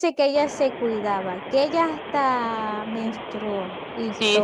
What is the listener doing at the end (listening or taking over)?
taking over